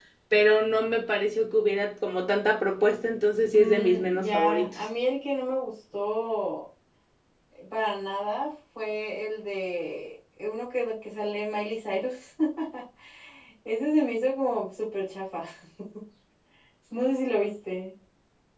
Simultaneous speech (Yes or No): Yes